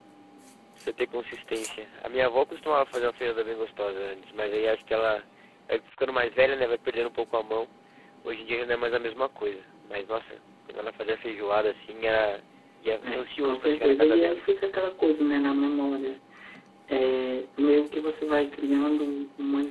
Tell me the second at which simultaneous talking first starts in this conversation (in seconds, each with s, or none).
13.0 s